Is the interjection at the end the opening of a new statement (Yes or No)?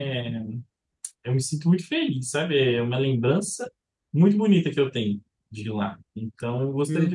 No